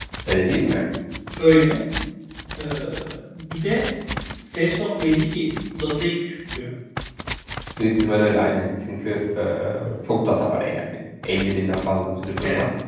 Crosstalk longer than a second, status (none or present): none